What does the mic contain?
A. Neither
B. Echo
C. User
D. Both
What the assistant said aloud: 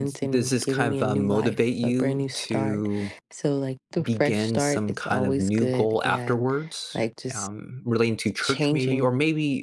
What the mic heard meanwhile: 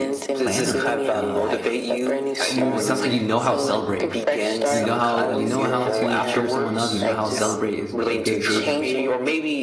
D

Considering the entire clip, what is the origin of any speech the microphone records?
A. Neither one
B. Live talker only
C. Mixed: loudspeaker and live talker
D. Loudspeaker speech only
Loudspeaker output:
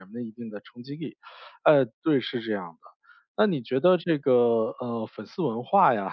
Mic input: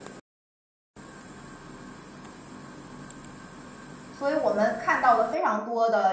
B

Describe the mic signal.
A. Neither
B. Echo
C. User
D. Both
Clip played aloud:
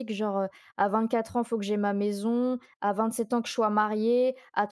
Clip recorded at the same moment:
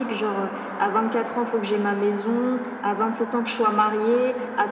B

